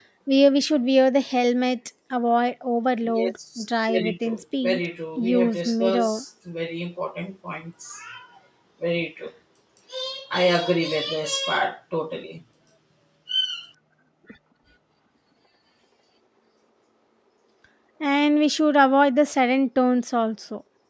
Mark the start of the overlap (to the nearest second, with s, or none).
3 s